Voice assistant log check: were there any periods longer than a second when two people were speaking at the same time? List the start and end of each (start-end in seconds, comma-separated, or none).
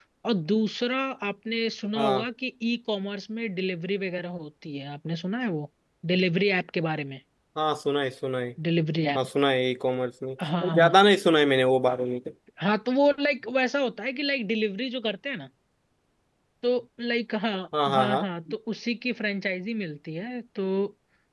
none